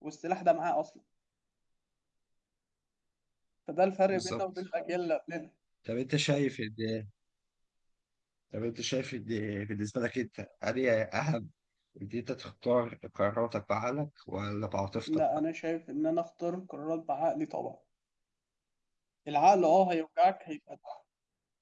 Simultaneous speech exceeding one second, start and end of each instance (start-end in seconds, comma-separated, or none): none